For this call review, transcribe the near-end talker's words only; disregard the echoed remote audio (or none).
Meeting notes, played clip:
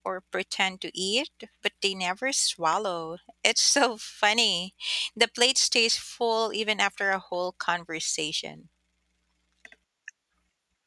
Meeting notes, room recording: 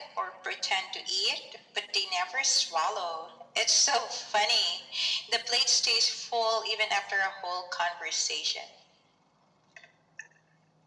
none